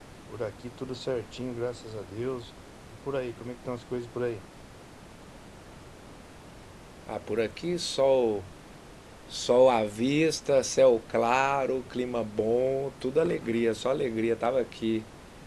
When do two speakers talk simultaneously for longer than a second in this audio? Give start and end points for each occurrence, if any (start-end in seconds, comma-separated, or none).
none